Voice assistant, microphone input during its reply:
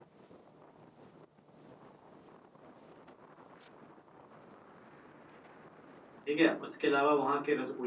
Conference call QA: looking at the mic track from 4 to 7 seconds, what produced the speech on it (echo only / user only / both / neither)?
user only